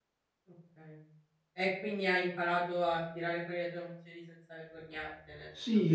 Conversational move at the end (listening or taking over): taking over